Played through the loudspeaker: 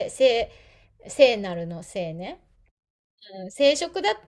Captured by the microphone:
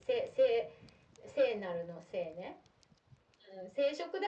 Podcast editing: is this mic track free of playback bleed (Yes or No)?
No